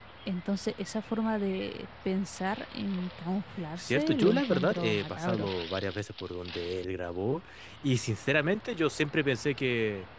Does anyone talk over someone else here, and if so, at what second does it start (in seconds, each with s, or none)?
3.8 s